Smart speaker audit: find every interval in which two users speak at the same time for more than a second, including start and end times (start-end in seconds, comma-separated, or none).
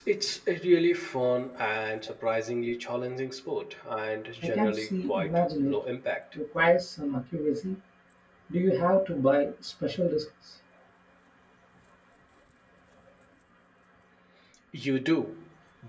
4.4-5.8